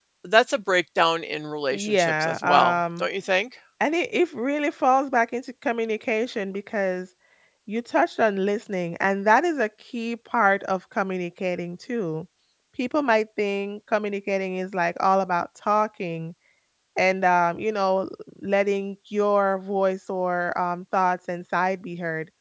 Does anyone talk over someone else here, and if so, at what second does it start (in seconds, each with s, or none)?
1.7 s